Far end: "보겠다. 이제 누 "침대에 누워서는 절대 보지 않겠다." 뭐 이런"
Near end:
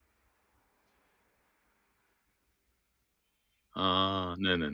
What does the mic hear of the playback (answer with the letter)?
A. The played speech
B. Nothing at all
B